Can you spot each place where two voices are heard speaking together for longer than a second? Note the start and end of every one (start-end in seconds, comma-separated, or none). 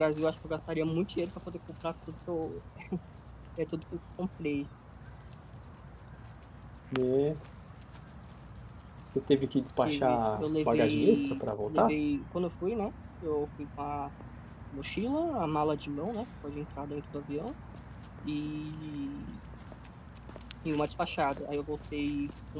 9.8-11.9